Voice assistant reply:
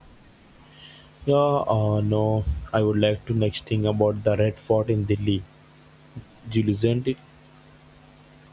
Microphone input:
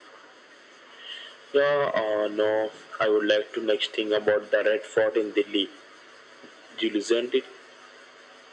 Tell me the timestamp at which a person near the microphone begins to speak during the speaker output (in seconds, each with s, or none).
none